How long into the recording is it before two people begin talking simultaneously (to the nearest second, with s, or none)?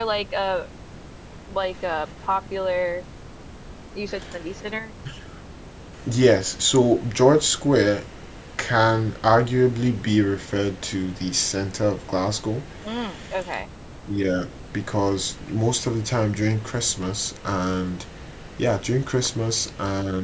none